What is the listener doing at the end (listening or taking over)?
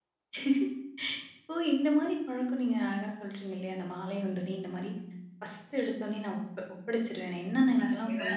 listening